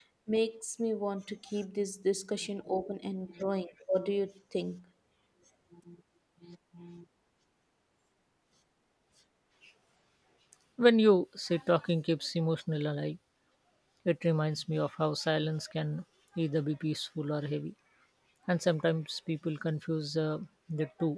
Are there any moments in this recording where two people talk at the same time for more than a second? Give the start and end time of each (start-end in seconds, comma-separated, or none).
none